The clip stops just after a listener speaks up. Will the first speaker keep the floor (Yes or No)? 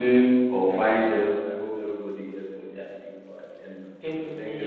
No